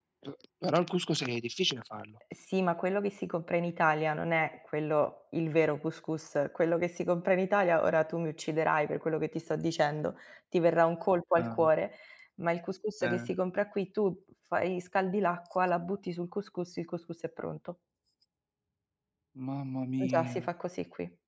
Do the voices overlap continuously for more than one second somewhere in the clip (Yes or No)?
No